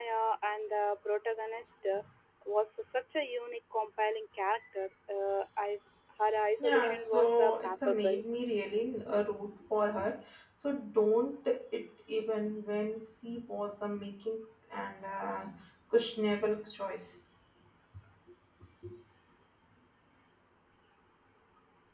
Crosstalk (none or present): present